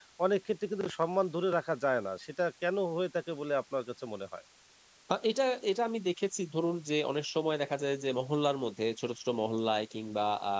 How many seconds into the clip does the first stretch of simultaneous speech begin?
none

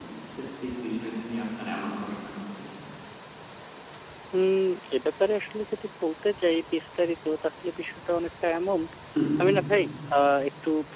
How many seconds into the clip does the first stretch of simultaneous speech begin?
none

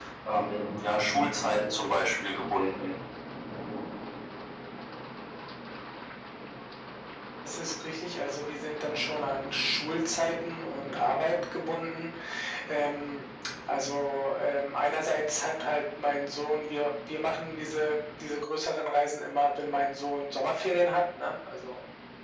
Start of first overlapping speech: none

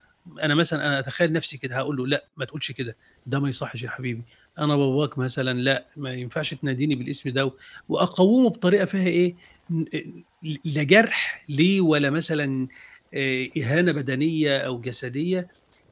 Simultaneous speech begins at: none

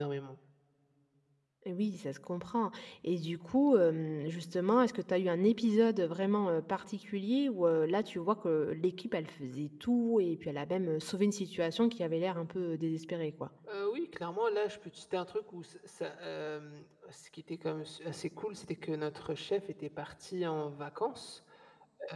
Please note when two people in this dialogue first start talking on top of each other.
none

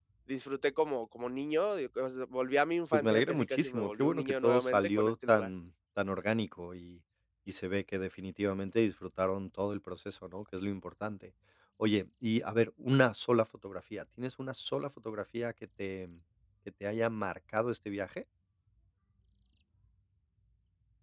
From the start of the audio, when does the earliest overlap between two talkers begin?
2.9 s

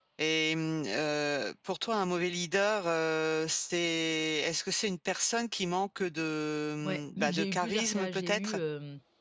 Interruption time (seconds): 6.8 s

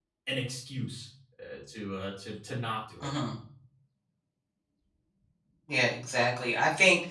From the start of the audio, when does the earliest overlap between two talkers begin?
none

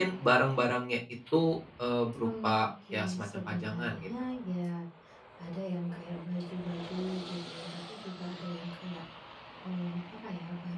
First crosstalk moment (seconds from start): 2.2 s

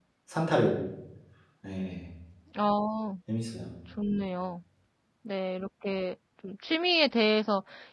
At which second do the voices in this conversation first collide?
none

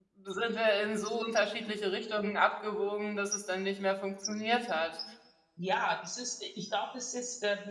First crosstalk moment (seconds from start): none

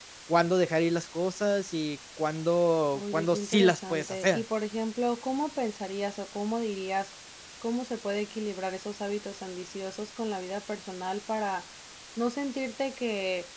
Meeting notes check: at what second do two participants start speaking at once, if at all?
2.9 s

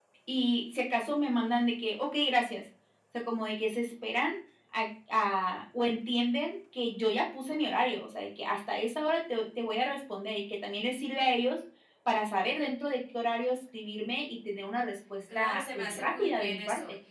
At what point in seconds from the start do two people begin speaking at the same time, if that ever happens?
15.3 s

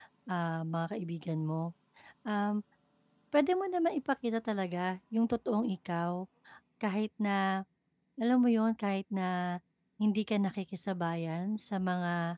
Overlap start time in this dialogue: none

